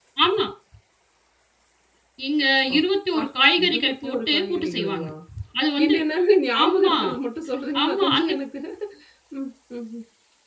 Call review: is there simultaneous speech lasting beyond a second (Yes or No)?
Yes